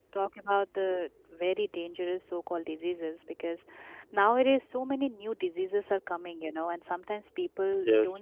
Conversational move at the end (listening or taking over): listening